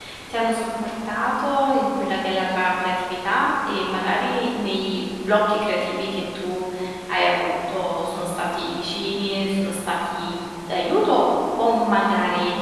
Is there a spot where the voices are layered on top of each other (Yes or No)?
No